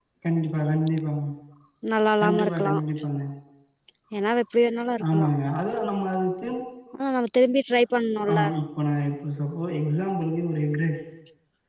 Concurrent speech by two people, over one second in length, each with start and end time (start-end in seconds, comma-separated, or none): none